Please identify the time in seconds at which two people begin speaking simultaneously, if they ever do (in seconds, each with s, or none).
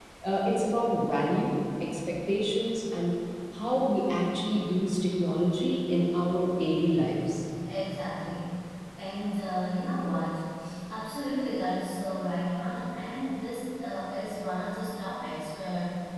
none